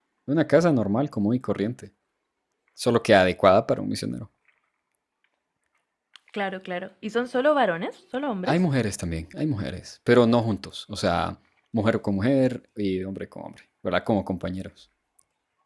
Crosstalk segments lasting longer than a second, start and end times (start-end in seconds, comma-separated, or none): none